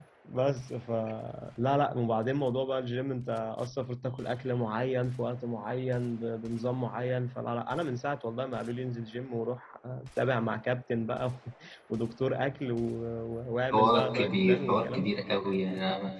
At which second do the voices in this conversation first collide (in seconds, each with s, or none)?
13.7 s